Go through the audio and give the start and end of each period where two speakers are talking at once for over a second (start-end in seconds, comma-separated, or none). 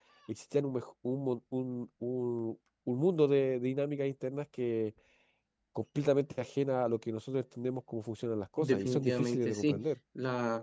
8.6-9.8